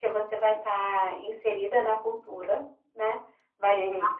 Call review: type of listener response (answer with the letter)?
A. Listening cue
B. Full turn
A